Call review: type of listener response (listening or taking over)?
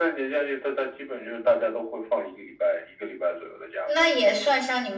taking over